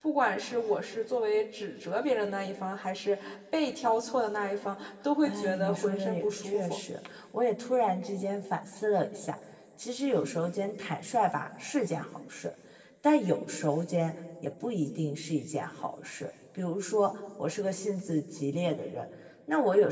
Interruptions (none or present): present